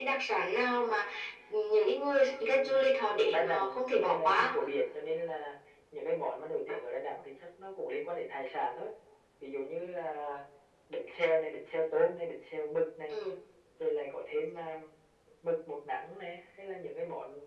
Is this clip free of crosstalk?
No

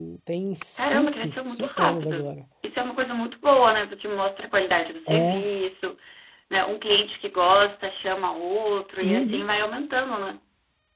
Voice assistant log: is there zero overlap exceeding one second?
No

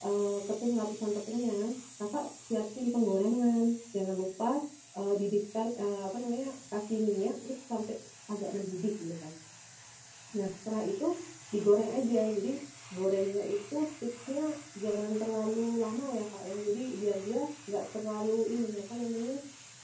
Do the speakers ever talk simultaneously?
No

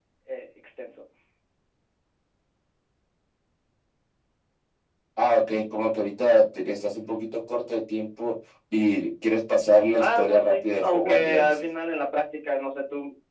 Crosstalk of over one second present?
Yes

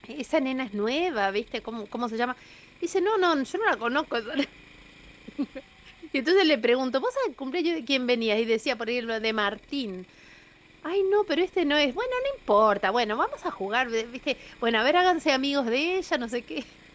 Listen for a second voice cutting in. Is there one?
No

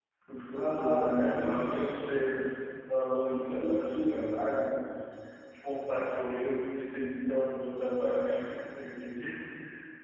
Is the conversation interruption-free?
No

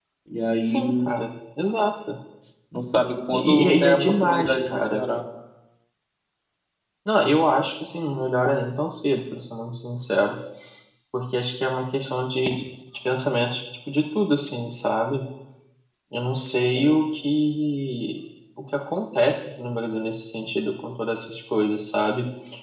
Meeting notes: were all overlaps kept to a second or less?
No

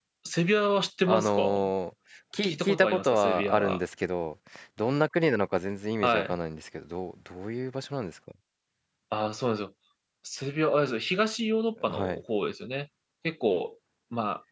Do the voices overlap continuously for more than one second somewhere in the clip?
Yes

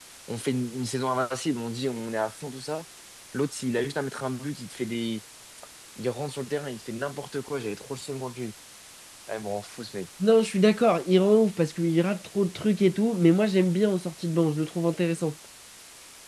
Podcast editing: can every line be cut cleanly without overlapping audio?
Yes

